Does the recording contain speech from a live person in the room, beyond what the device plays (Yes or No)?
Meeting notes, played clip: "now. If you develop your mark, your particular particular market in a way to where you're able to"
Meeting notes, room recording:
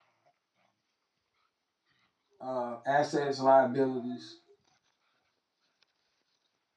Yes